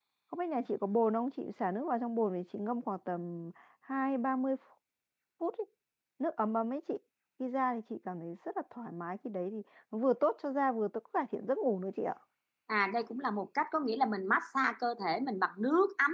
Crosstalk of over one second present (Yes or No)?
No